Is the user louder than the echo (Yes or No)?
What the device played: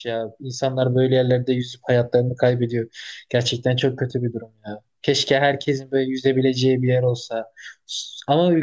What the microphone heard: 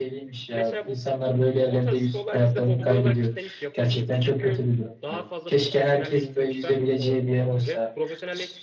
No